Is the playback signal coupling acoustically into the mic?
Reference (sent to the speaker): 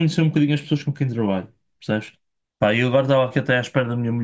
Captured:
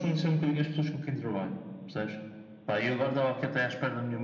Yes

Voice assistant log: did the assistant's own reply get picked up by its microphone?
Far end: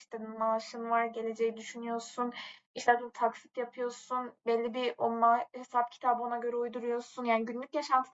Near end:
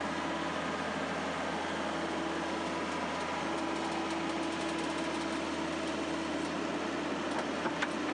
No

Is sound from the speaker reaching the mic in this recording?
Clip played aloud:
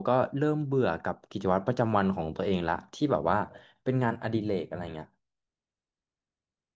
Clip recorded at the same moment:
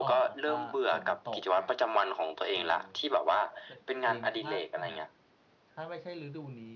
Yes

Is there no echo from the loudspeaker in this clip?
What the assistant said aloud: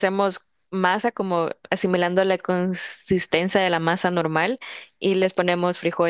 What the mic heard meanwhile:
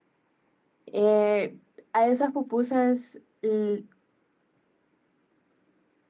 Yes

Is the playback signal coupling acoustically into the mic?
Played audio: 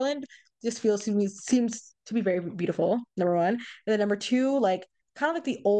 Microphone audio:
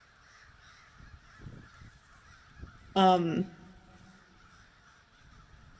No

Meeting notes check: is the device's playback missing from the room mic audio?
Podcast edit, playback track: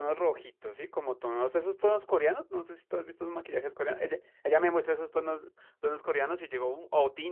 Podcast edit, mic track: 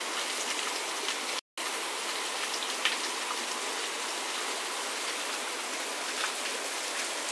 Yes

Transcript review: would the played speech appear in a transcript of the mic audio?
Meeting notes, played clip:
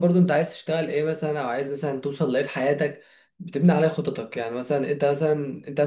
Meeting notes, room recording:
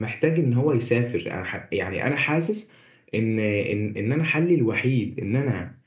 No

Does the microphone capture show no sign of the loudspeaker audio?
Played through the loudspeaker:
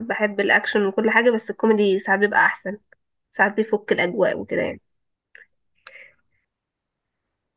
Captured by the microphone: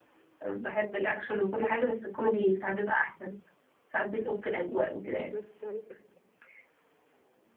No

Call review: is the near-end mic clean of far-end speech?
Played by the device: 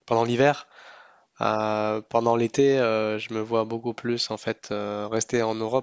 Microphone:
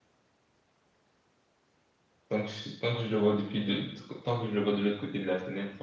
Yes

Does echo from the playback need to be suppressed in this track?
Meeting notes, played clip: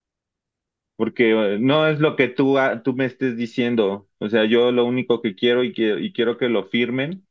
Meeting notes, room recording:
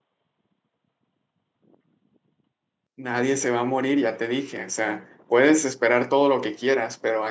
No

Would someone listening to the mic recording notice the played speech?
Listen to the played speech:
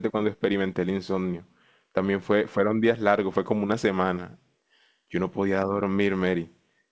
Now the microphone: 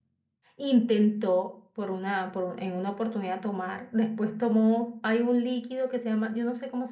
No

